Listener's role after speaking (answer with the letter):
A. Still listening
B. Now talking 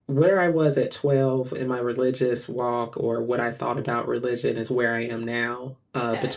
A